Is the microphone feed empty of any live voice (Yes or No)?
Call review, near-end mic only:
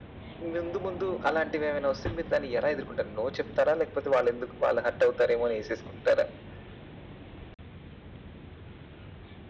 Yes